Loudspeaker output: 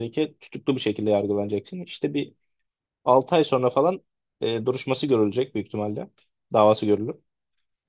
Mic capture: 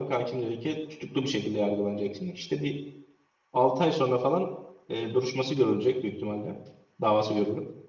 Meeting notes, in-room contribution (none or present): none